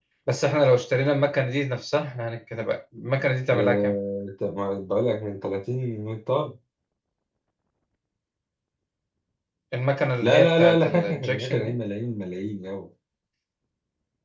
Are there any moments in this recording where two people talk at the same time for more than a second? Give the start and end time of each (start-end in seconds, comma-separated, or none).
10.2-11.8